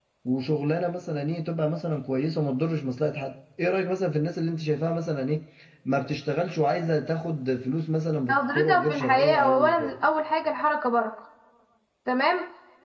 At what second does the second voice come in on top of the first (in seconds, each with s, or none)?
8.3 s